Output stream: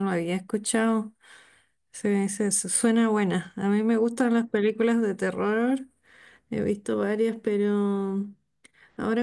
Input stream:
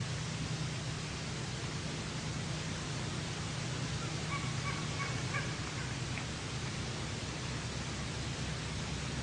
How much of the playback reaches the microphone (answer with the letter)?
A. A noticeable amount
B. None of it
B